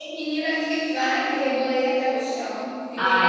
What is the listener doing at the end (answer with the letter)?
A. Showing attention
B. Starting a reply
B